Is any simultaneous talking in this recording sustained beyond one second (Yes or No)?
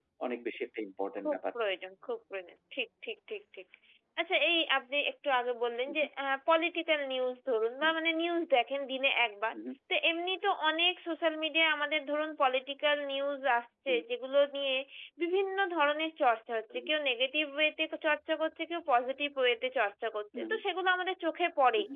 No